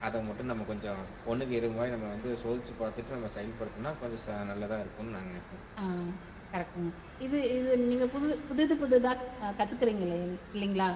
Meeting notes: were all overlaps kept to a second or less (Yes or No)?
Yes